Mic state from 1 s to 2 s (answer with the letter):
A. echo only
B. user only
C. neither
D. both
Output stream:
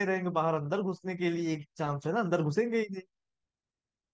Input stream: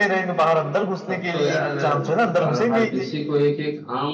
D